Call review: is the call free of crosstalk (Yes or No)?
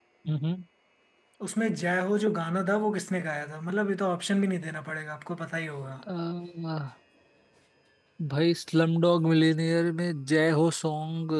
Yes